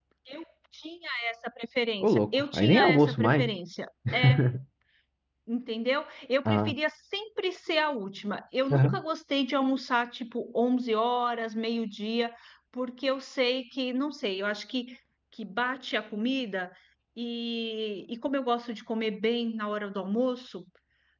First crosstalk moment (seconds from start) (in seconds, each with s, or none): 2.0 s